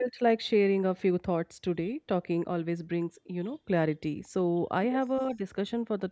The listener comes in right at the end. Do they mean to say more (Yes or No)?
No